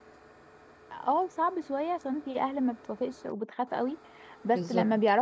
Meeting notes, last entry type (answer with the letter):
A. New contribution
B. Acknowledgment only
B